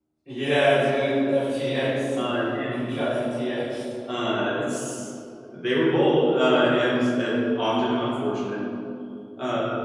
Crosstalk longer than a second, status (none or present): none